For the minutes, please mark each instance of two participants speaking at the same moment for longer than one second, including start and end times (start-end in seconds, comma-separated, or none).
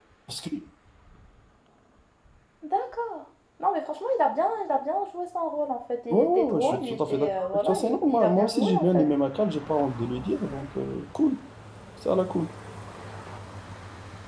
6.1-9.0